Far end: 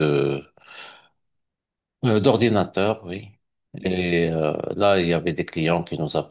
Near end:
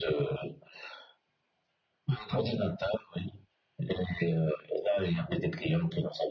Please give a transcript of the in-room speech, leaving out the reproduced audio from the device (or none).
none